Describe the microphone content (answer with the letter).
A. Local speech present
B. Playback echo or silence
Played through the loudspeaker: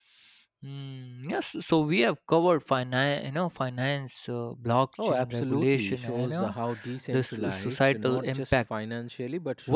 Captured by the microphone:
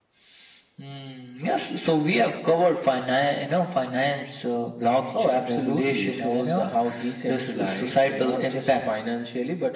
B